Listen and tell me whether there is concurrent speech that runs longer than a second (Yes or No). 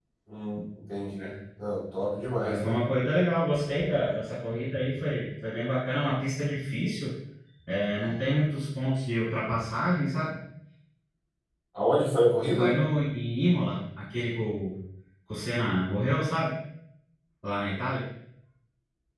No